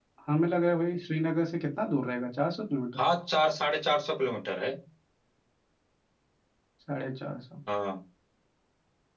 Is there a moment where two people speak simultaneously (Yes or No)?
No